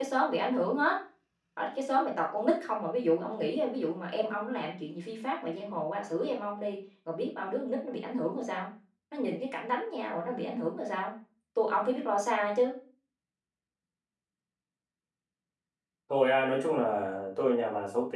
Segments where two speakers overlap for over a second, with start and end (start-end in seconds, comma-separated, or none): none